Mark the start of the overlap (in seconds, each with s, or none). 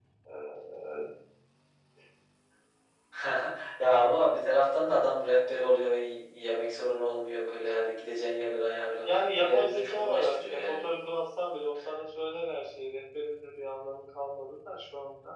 9.0 s